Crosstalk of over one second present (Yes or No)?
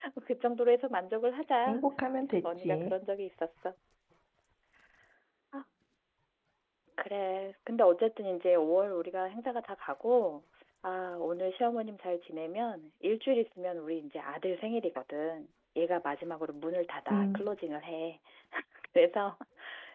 No